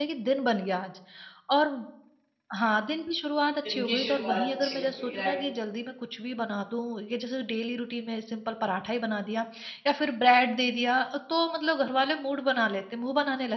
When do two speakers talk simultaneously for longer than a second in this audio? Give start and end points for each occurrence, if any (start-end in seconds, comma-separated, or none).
3.7-5.4